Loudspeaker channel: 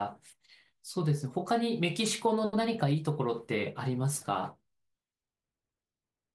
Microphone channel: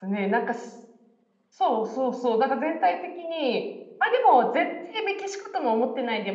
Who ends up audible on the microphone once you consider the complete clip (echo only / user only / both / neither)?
user only